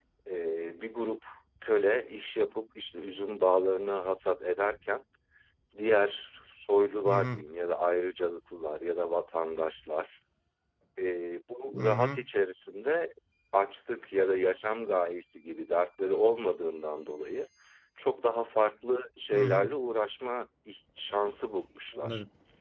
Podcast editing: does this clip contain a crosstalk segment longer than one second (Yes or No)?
No